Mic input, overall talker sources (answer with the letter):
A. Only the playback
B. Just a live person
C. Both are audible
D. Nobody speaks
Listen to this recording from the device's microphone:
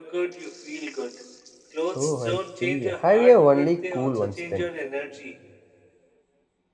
C